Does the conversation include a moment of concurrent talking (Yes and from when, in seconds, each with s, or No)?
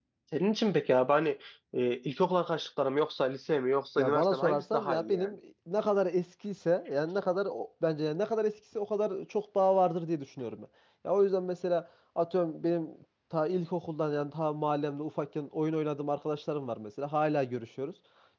Yes, from 4.0 s